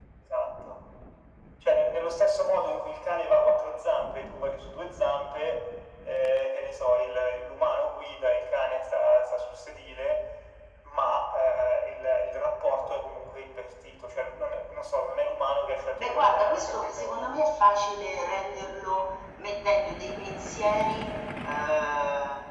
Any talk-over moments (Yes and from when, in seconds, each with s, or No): Yes, from 16.0 s